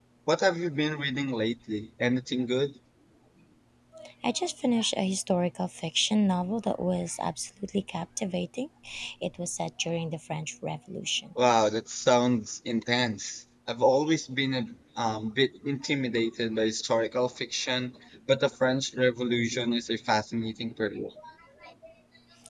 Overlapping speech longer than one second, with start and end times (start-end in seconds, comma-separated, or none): none